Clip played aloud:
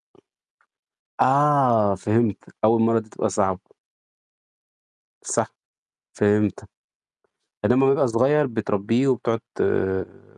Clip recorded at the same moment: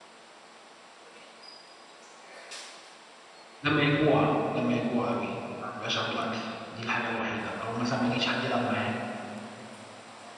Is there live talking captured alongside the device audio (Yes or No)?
Yes